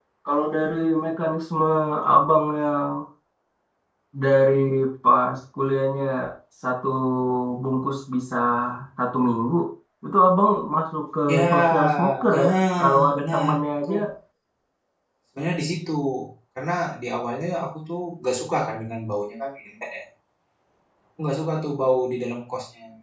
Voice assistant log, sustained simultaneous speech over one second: present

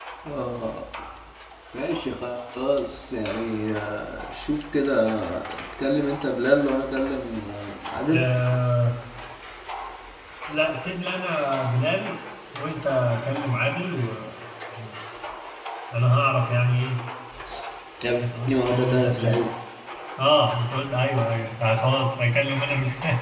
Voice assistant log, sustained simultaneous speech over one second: present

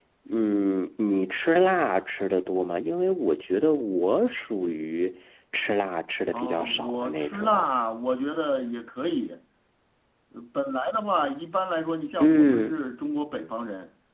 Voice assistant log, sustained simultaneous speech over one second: present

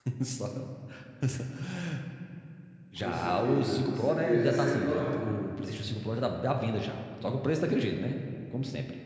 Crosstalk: present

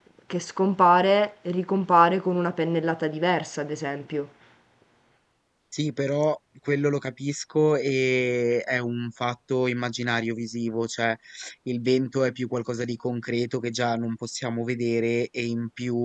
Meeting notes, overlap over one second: none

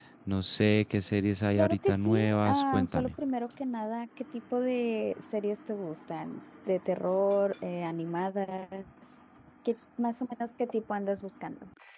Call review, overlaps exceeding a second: present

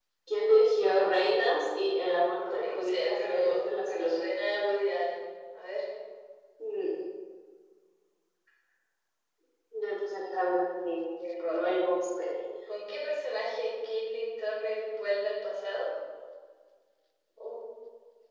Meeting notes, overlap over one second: present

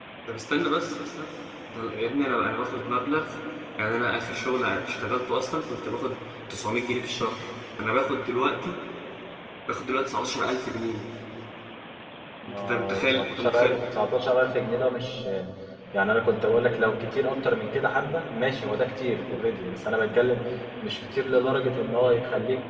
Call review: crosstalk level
present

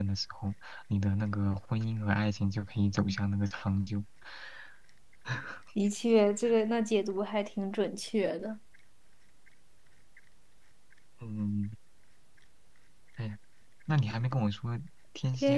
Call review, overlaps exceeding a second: none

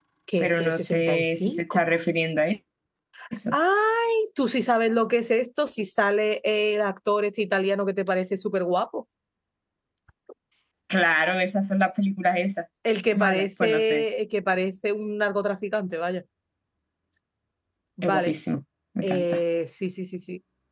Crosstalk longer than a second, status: present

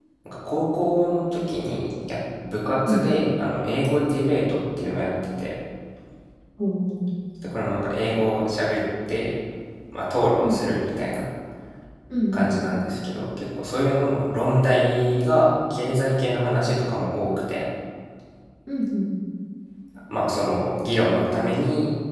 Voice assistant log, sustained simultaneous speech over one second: none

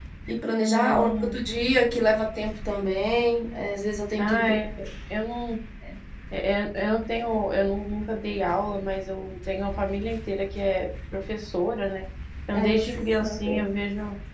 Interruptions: present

